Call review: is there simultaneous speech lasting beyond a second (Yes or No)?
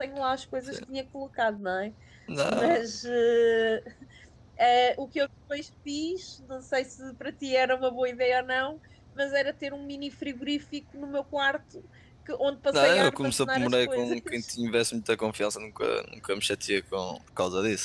Yes